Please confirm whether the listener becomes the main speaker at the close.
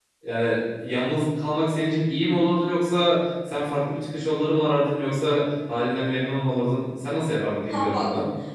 Yes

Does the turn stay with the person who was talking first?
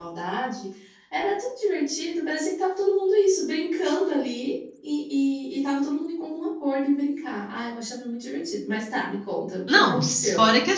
No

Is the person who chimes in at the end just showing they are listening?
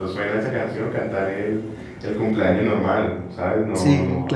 Yes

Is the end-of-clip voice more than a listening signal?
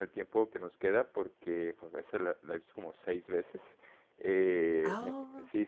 No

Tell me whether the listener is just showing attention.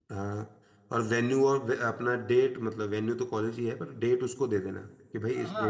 No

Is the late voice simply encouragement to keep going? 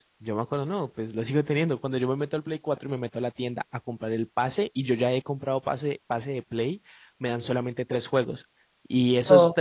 Yes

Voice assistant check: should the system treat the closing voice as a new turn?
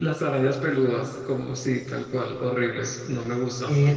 Yes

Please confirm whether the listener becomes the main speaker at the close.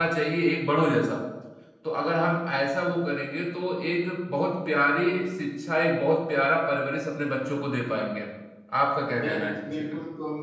Yes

